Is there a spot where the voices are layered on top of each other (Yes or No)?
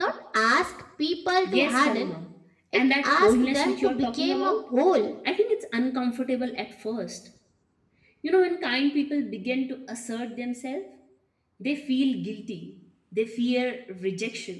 Yes